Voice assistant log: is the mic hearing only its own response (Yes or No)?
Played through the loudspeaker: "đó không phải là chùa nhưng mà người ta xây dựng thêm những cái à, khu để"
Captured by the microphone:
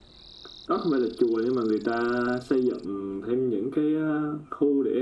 Yes